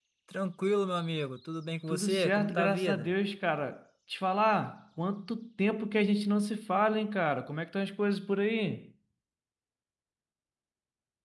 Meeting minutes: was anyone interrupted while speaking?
Yes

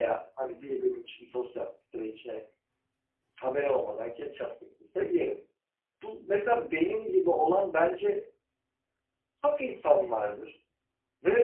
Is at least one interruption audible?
No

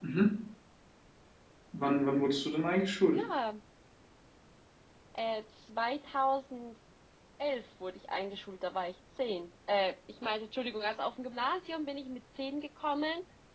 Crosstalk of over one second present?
No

